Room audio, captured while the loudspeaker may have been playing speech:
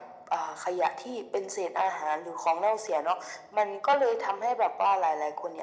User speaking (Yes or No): No